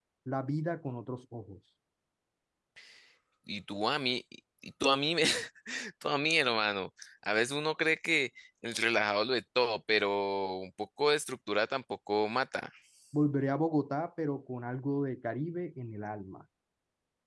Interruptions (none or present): none